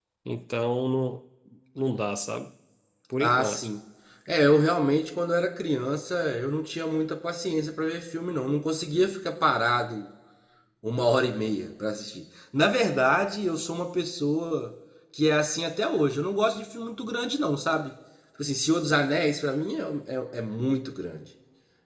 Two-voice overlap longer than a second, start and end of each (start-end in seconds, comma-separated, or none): none